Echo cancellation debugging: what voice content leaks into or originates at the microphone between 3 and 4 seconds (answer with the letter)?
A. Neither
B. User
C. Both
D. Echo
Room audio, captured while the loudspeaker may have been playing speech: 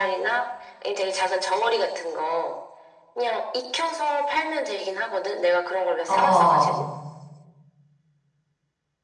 D